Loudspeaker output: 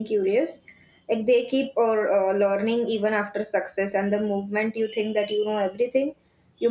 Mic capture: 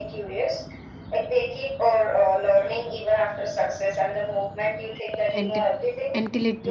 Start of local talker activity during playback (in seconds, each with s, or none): 5.3 s